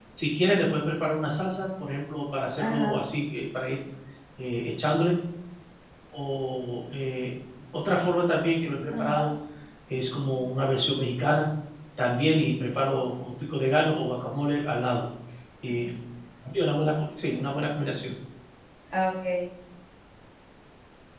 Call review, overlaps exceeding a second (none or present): none